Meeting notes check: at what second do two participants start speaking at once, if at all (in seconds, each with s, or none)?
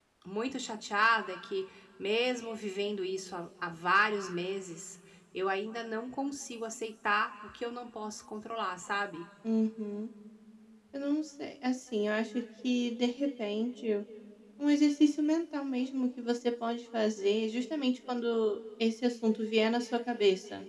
none